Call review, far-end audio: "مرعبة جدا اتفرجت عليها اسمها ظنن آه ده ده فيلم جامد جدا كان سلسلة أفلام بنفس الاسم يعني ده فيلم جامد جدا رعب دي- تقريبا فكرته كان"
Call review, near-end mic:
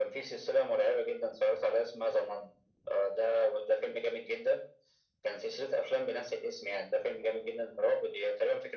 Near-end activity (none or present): none